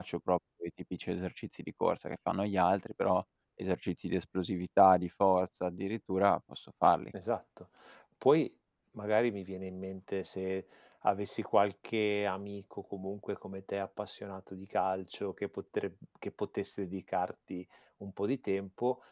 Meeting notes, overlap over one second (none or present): none